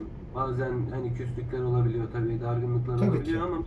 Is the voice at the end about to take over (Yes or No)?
No